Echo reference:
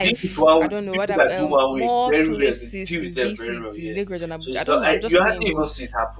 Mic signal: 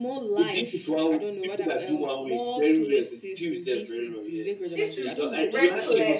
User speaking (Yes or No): Yes